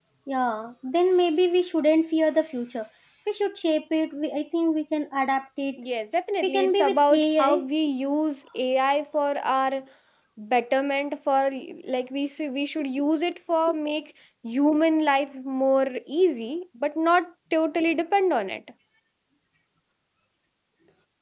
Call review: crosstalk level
present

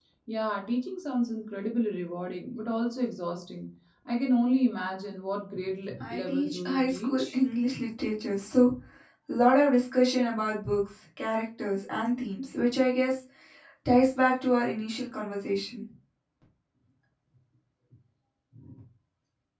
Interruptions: present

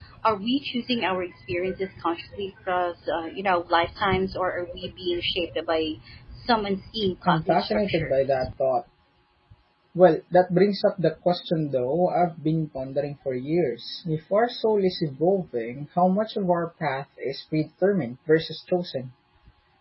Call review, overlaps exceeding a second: present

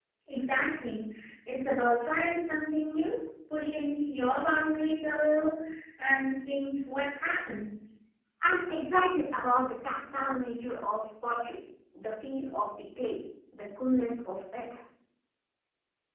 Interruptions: none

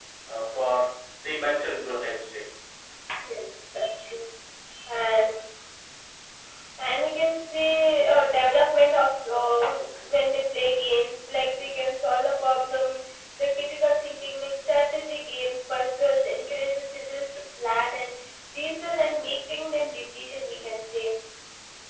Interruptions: none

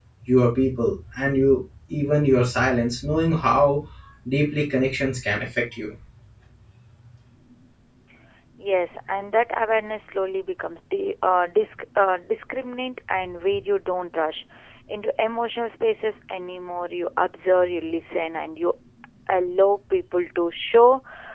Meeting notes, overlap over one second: none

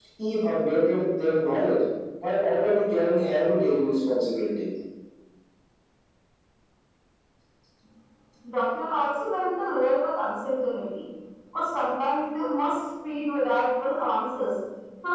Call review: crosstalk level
none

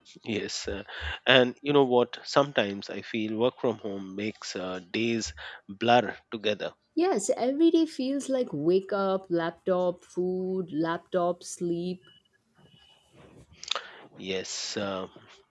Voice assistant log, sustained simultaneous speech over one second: none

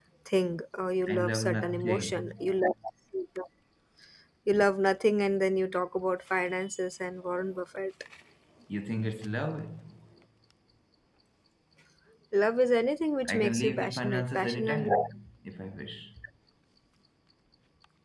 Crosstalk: present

